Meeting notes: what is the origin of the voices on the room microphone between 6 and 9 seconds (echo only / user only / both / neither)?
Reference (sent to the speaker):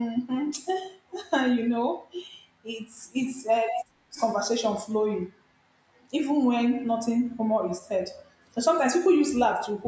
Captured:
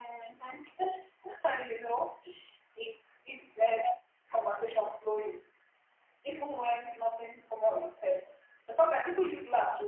echo only